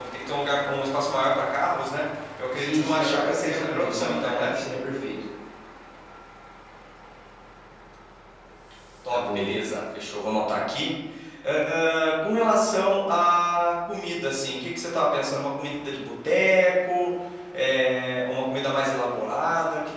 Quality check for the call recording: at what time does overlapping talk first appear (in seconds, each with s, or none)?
2.6 s